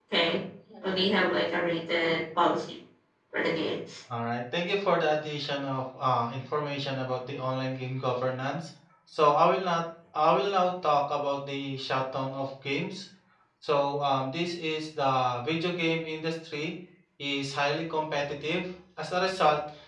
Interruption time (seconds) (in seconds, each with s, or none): none